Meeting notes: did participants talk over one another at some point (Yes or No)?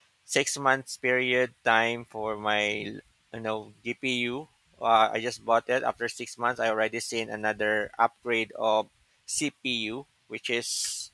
No